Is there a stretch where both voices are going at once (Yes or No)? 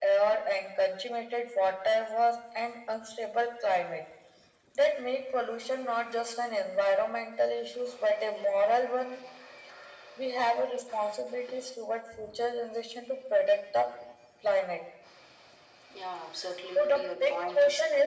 Yes